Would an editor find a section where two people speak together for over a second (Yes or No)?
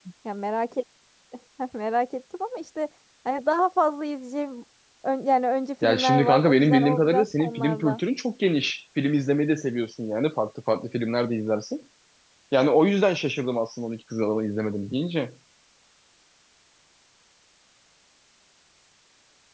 Yes